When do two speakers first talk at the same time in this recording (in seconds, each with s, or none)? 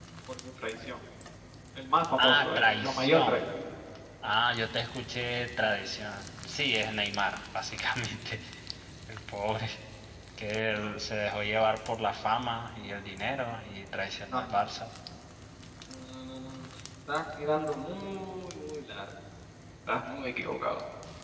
2.2 s